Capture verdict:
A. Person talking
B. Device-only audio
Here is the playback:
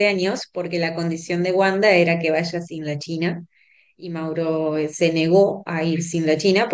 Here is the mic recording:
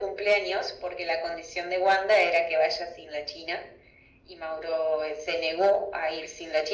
B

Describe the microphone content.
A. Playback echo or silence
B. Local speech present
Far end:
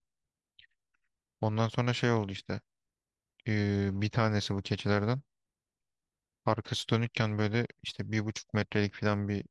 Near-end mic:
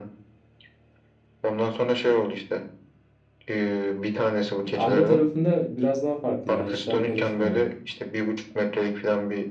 B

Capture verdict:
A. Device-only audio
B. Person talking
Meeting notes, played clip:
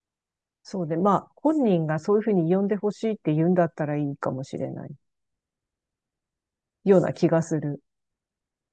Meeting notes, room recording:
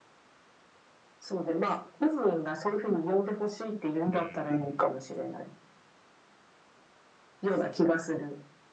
B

